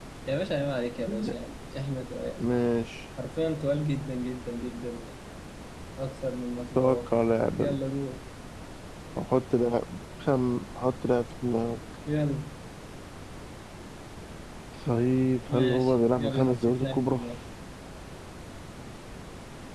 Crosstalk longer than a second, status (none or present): present